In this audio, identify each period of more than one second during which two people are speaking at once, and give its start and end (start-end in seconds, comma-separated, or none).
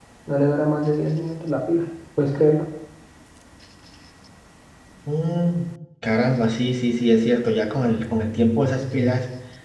none